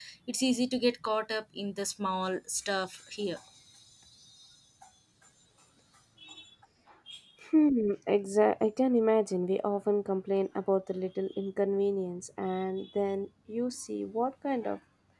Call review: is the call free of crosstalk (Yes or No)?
Yes